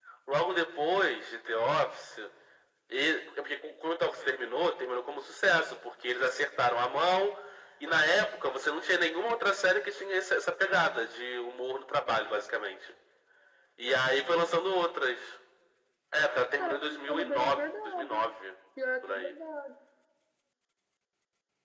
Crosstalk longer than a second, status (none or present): present